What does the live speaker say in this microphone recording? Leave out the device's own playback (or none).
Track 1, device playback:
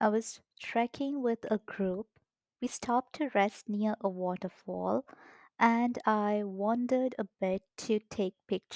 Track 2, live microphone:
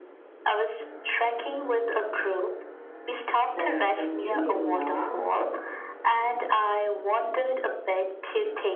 That's a new rule now.